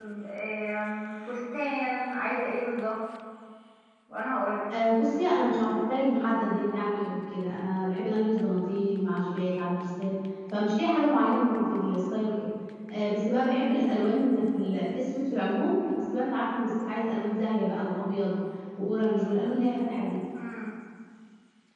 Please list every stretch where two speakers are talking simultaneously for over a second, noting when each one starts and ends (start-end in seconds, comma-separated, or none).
none